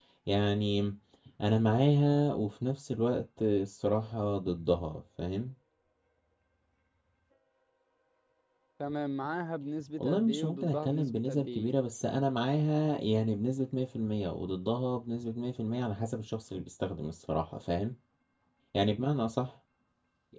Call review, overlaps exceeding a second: present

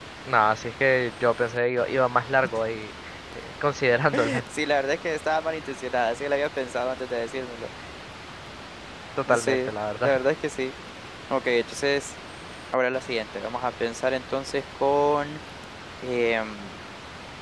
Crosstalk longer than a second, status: none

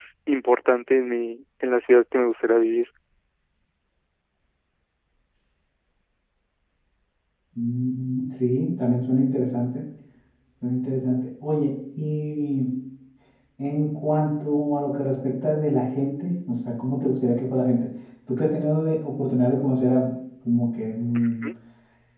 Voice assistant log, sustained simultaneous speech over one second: none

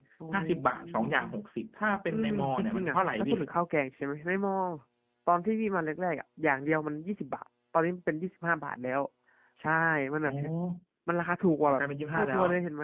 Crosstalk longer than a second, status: present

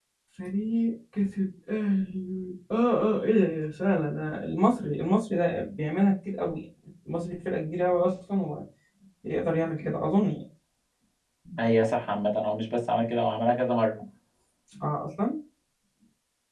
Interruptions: none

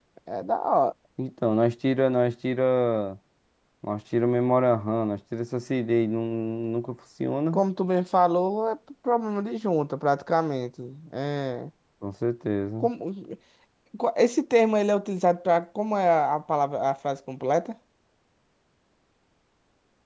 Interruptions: none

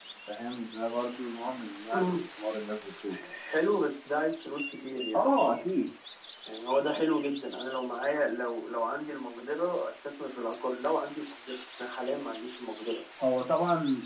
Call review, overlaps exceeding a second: none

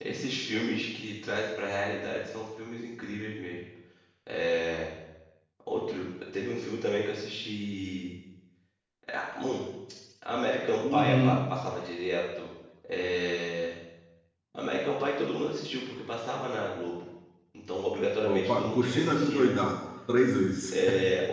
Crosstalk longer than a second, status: present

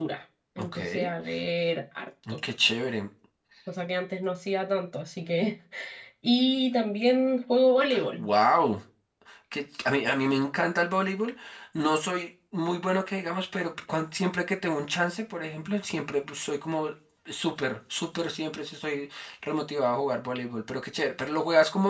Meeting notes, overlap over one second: none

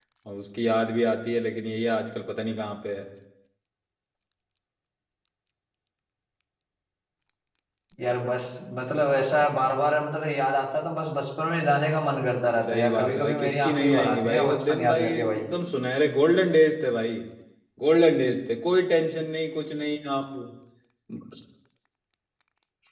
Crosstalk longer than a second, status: present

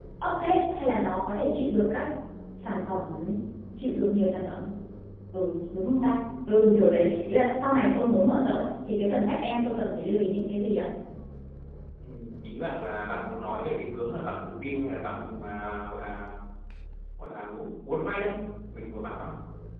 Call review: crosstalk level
none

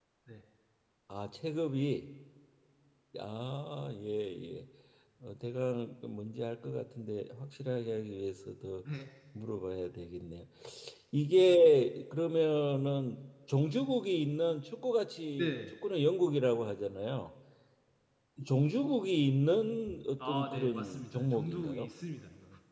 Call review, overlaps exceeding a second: present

